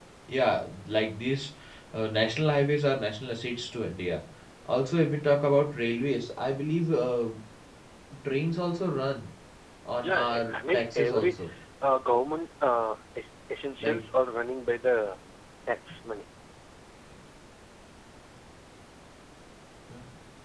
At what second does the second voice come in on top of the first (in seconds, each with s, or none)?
10.0 s